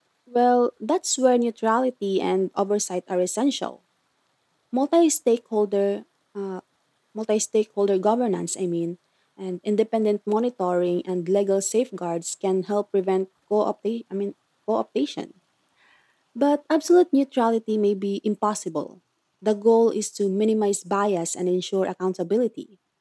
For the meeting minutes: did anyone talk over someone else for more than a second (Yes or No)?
No